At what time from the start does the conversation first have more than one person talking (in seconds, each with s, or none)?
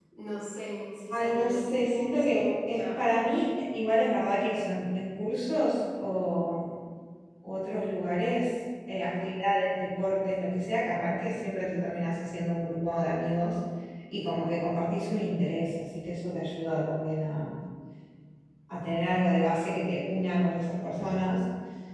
1.1 s